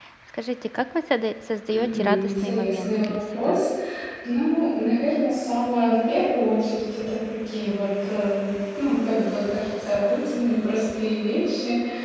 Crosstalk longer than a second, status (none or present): present